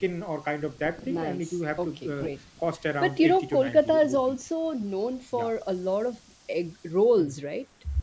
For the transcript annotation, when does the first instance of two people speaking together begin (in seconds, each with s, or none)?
1.1 s